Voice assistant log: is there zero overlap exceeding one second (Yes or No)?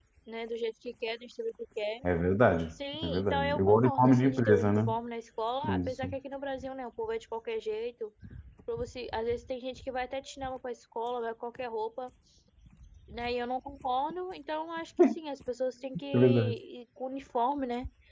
No